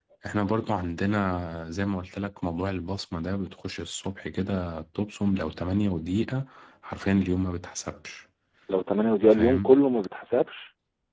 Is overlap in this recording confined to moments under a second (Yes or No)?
Yes